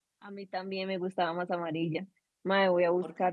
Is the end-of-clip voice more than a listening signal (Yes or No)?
No